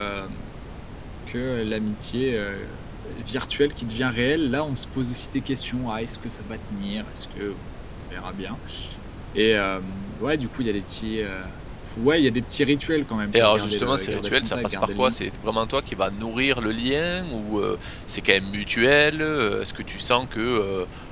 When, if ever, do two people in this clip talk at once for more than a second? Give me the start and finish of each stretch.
13.4-15.2

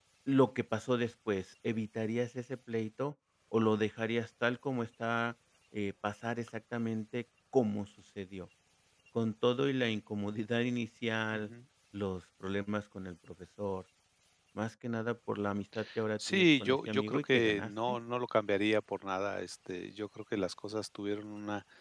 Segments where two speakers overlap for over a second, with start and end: 16.3-18.0

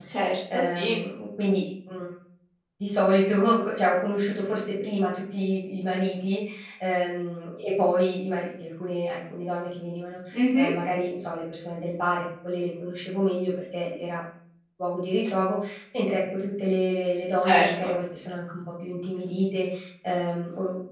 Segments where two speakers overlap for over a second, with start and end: none

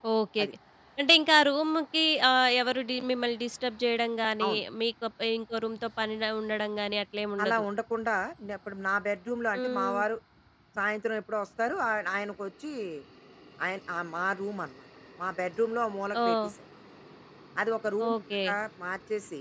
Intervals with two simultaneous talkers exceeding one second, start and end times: none

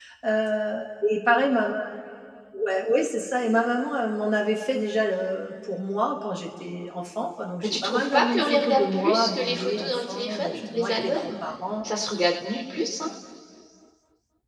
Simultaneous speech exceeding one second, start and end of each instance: 7.6-11.3

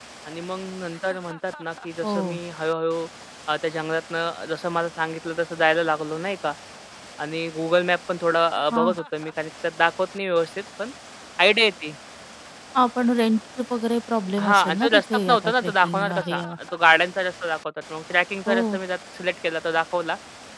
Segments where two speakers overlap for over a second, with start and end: 14.4-16.5

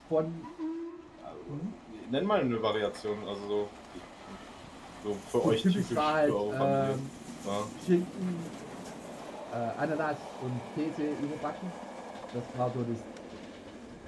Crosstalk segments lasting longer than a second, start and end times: 5.4-7.0

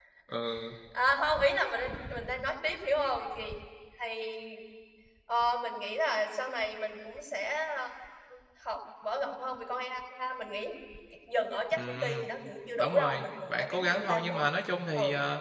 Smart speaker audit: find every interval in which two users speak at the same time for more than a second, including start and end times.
12.8-14.5

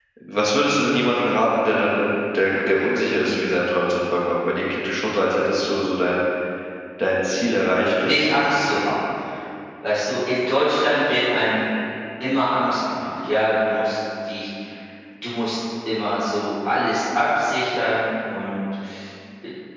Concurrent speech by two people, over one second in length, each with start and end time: none

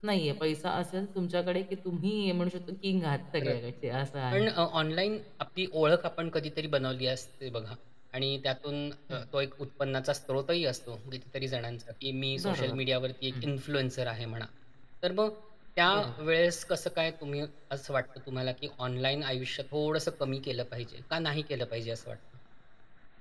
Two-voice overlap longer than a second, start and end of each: none

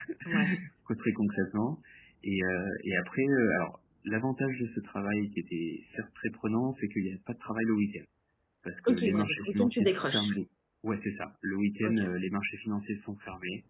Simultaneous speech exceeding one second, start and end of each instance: 8.9-10.3

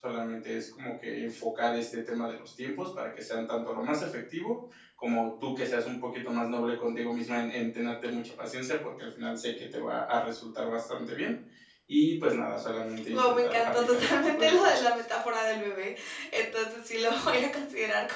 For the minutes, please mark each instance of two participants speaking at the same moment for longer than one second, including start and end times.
13.1-14.8

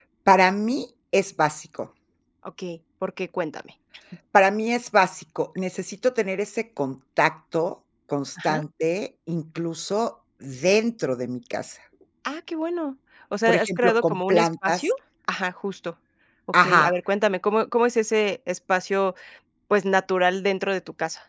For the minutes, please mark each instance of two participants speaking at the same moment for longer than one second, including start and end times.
13.5-14.9

